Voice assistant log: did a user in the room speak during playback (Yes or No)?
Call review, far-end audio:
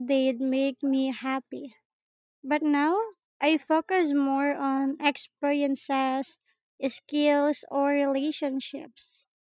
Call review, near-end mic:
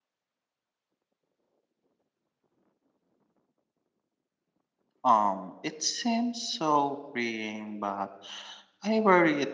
Yes